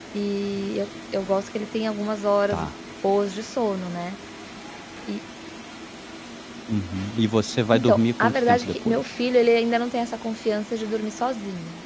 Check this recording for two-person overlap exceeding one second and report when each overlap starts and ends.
7.7-9.2

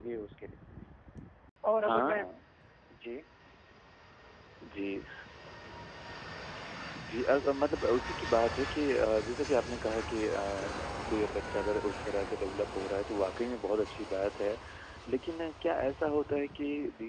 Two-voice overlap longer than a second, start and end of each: none

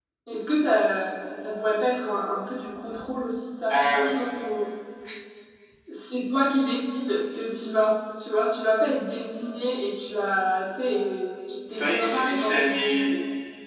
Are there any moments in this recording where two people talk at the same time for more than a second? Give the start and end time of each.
11.7-13.1

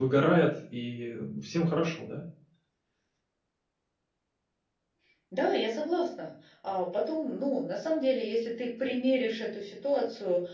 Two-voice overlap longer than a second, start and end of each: none

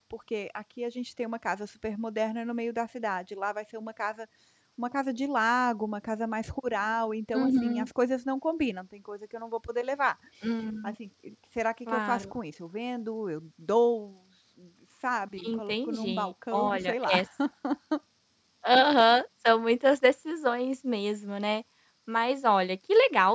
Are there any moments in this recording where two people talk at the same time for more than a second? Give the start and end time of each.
15.4-17.1

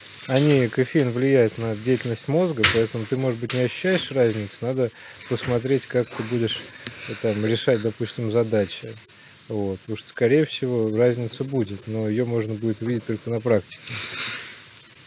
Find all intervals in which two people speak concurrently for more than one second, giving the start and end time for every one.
none

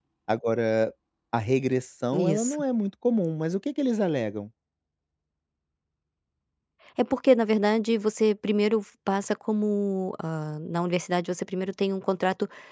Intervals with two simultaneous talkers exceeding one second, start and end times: none

